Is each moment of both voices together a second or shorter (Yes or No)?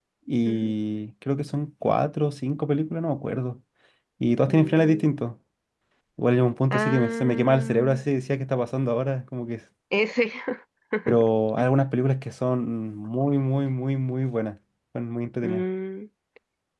No